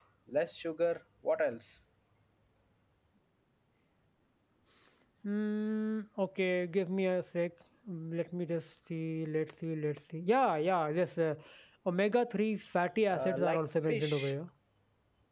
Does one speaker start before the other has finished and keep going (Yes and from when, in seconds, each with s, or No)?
Yes, from 13.1 s